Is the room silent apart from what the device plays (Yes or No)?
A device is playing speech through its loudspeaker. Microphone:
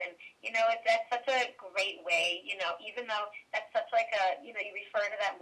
Yes